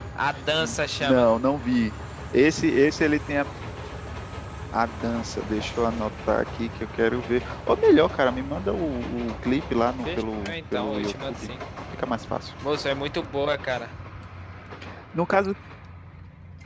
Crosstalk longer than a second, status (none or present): present